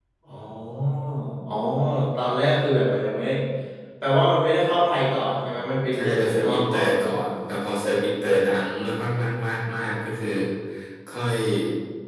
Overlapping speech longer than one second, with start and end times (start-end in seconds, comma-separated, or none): 5.9-7.2